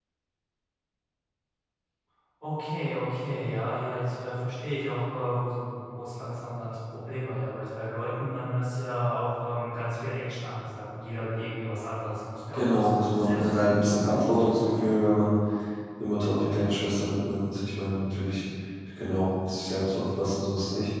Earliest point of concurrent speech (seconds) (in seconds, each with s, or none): 12.5 s